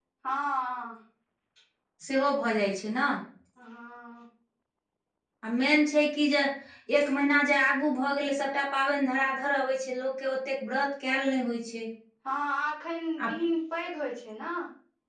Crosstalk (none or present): none